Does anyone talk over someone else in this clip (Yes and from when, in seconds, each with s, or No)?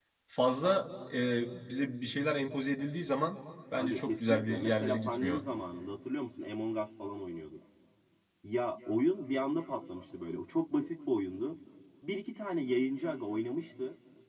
Yes, from 3.8 s